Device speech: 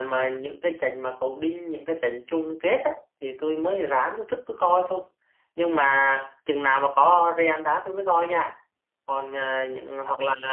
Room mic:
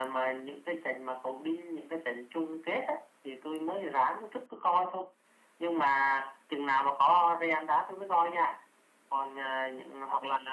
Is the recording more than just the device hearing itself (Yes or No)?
No